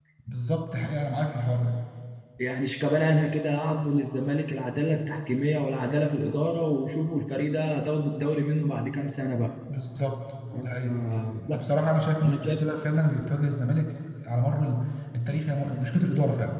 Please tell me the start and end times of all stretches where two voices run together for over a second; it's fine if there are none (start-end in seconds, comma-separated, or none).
none